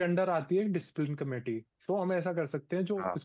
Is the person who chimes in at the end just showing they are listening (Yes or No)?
Yes